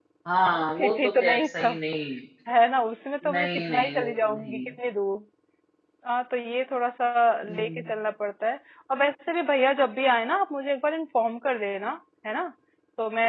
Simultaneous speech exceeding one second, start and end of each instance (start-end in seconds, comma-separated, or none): 0.5-1.8, 3.3-4.7